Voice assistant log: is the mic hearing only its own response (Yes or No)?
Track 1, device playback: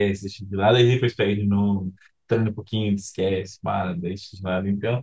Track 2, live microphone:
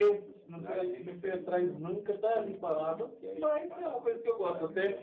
No